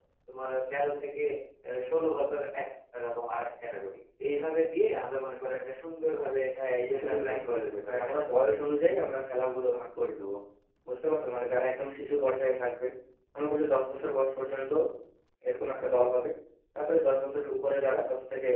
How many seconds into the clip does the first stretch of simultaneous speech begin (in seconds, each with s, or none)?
6.8 s